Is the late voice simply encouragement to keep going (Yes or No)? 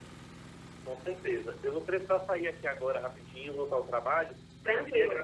Yes